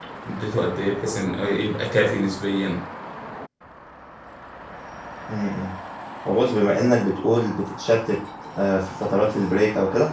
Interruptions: none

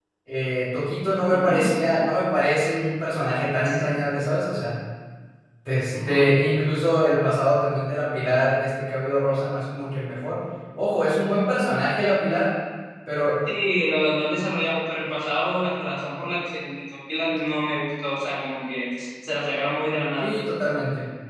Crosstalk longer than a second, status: none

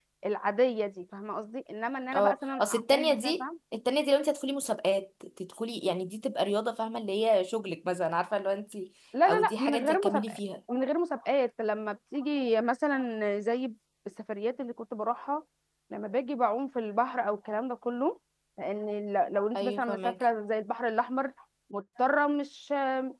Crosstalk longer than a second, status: present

